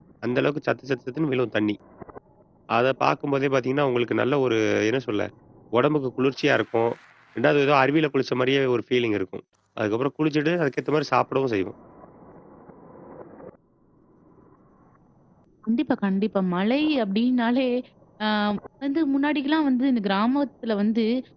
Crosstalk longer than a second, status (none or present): none